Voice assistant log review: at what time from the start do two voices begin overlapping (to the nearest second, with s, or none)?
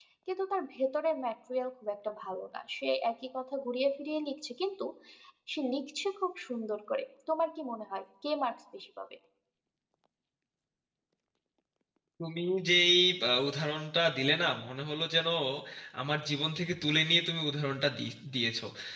none